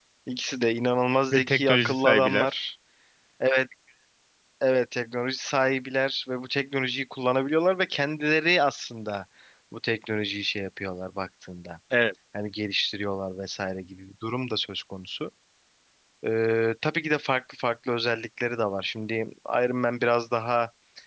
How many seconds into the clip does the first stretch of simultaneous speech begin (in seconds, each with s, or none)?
1.3 s